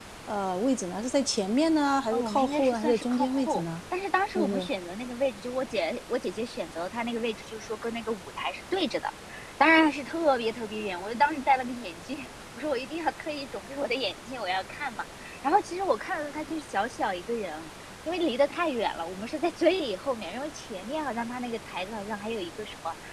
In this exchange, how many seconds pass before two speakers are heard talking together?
2.1 s

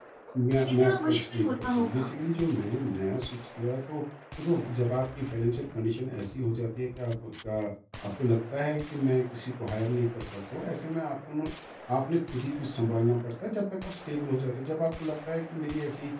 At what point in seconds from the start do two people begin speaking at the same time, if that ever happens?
0.6 s

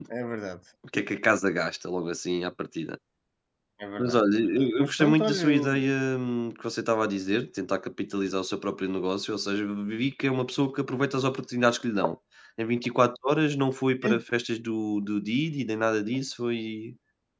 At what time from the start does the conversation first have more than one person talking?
4.0 s

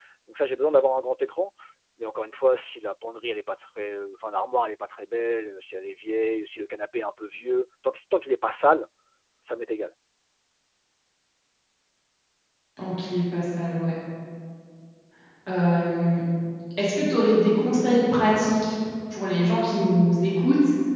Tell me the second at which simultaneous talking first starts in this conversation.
none

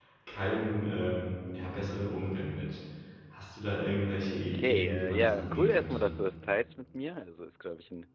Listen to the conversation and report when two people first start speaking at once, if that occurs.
4.3 s

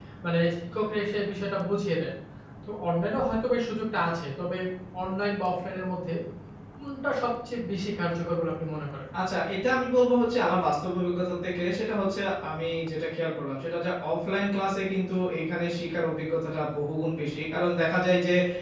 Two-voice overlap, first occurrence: none

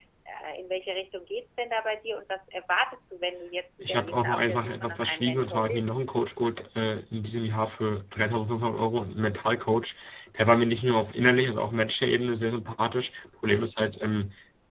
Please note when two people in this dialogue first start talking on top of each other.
3.8 s

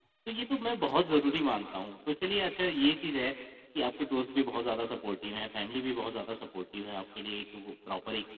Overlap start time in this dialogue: none

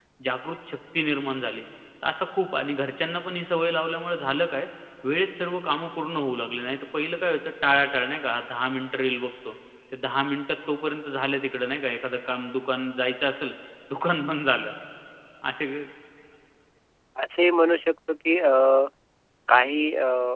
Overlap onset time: none

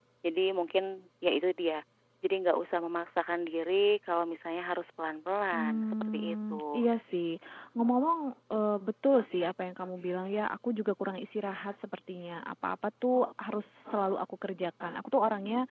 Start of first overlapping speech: 5.5 s

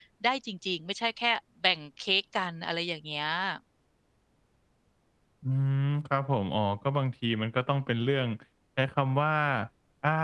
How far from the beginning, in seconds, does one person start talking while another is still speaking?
none

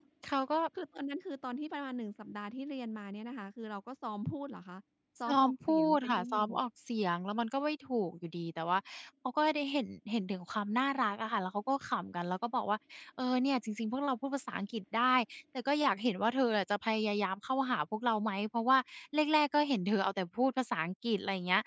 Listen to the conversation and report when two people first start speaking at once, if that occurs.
5.3 s

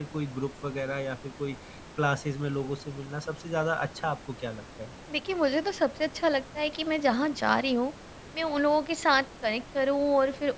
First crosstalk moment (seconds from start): none

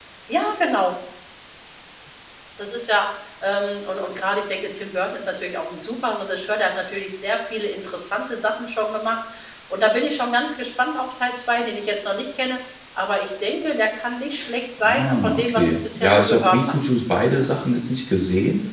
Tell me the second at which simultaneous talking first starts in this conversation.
14.8 s

